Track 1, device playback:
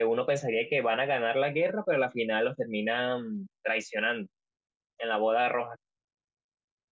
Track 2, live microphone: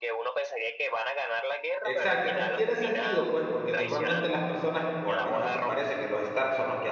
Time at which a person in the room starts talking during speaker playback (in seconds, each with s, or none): 1.8 s